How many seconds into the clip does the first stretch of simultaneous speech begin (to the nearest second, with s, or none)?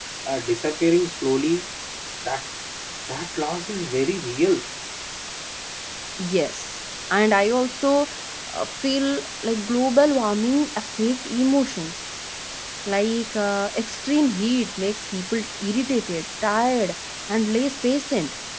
none